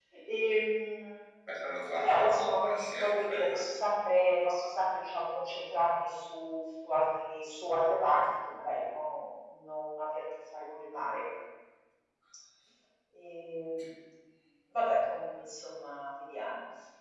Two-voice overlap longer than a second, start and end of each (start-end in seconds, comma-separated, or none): 2.0-3.8